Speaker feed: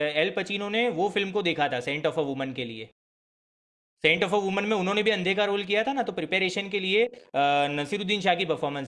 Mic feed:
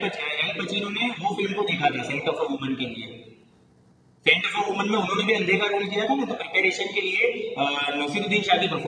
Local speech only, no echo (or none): none